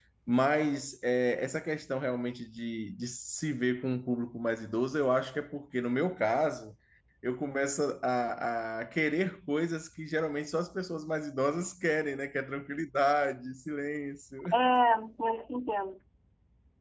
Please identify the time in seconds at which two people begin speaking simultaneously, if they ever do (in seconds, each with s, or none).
none